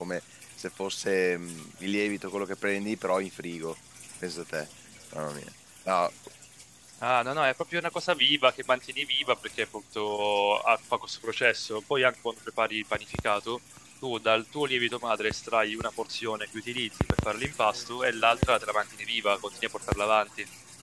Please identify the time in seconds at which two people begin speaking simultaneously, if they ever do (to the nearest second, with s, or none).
none